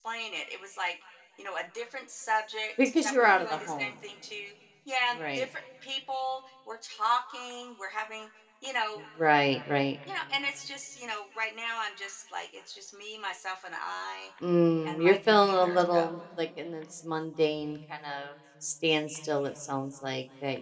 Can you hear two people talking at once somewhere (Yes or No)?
Yes